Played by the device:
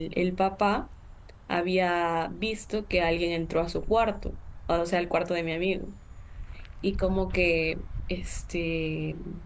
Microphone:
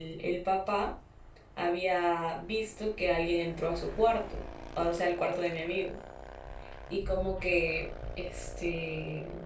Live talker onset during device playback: none

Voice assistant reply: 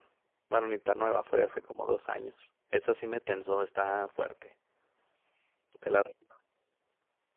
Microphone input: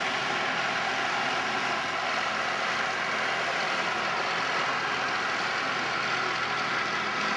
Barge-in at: none

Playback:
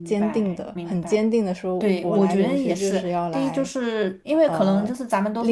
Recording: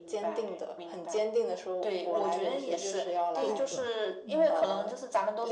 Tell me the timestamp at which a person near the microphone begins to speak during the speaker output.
3 s

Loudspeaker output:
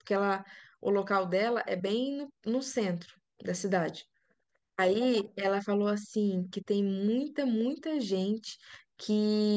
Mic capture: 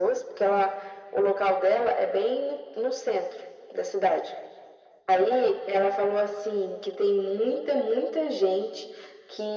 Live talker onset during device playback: none

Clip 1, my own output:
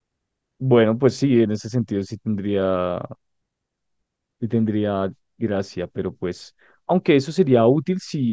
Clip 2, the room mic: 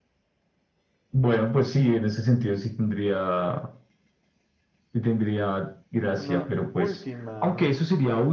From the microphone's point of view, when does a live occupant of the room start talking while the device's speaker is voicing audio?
6 s

